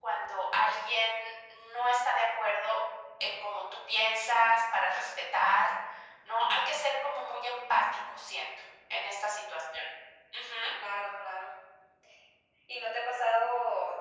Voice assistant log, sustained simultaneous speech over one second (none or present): none